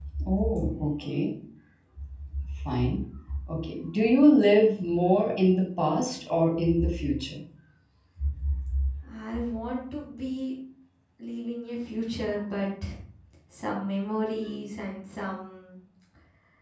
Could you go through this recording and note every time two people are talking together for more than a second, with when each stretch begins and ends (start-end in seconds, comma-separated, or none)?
none